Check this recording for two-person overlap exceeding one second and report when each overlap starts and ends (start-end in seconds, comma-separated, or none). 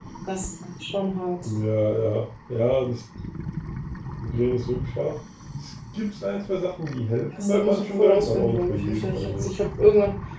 7.4-9.5